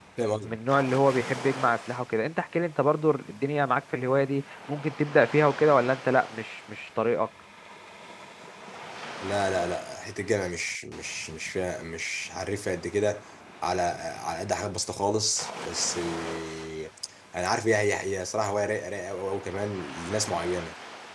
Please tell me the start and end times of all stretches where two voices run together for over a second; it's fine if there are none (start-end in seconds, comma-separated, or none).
none